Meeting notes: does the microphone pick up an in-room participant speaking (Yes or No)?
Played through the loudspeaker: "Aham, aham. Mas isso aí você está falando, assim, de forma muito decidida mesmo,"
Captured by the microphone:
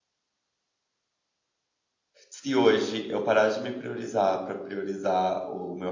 Yes